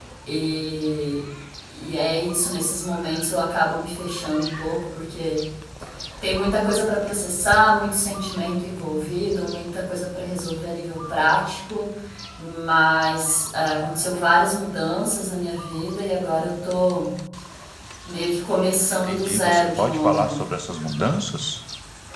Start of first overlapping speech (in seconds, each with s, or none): 19.1 s